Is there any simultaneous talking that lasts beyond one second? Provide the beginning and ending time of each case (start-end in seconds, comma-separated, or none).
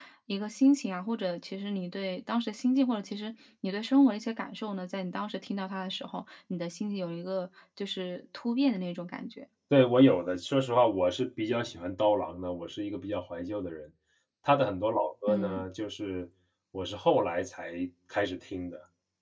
none